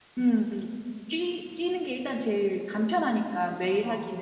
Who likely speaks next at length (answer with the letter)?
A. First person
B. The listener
B